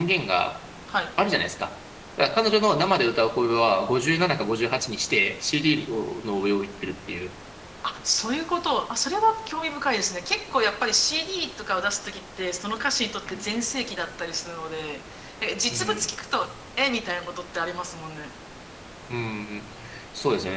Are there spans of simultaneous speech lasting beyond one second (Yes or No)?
No